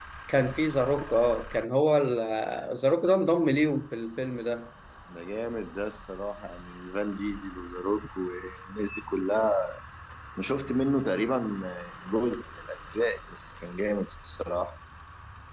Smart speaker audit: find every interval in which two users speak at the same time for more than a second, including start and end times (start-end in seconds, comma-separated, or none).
none